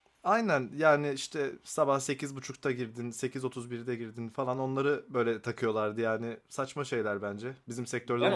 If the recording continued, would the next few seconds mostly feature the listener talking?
Yes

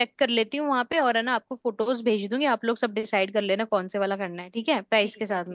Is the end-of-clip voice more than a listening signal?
Yes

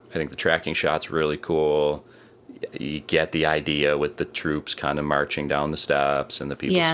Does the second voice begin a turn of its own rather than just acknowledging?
Yes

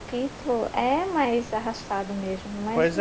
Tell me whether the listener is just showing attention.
No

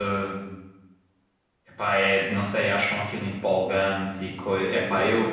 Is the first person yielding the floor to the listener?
Yes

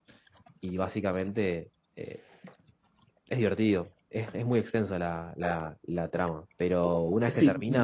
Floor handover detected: Yes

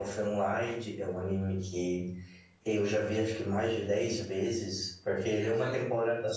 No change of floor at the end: Yes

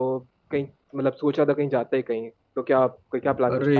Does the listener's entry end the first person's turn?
Yes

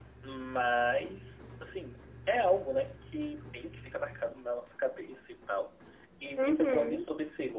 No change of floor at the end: Yes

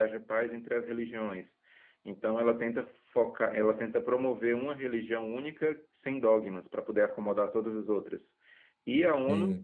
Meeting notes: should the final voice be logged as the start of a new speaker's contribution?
No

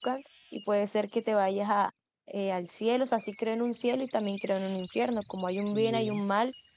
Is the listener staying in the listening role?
Yes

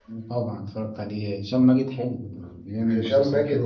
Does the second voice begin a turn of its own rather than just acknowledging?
Yes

